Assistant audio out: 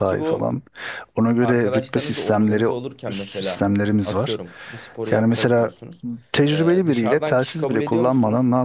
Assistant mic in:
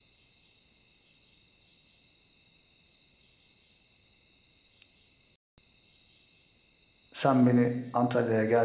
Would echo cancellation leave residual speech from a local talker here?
Yes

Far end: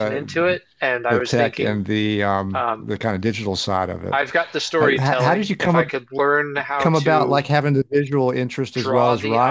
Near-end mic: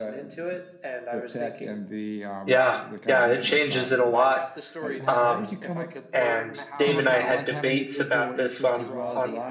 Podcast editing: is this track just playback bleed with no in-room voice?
No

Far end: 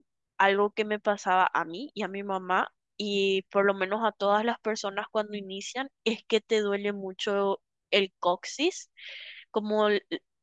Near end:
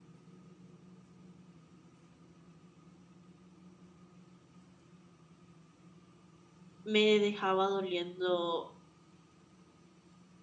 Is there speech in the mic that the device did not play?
Yes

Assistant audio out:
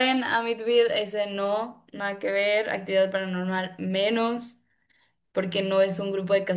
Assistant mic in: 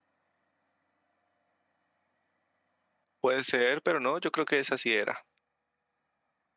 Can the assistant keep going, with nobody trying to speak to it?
No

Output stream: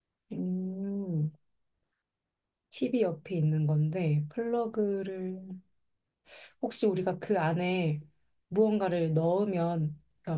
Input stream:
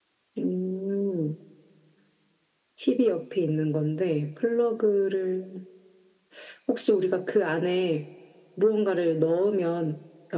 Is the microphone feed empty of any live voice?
Yes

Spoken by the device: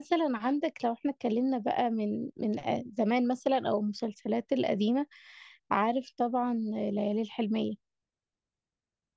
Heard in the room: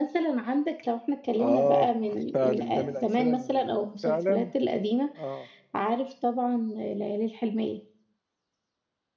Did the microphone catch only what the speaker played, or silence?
No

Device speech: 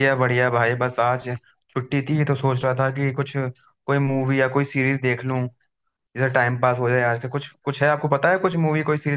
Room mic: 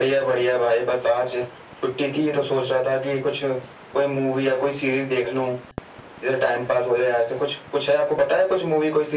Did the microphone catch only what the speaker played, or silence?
Yes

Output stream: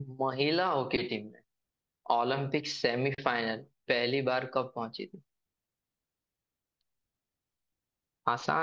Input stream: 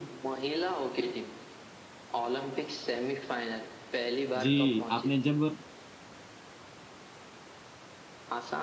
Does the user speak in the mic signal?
Yes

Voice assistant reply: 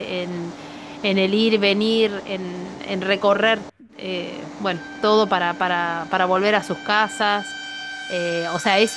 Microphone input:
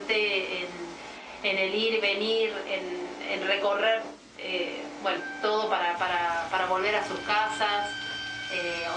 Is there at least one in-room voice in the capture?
No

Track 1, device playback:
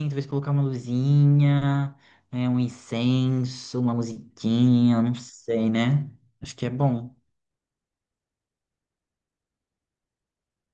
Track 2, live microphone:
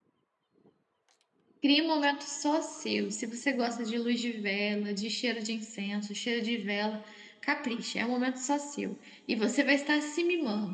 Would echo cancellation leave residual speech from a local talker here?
Yes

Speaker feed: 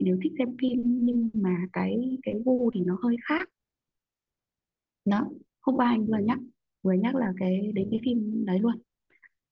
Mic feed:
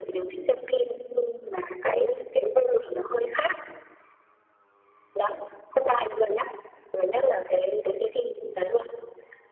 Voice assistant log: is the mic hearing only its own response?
Yes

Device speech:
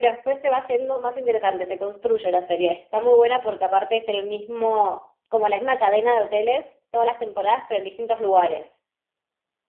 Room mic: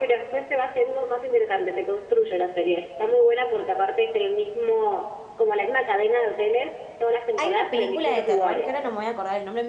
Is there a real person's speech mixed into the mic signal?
Yes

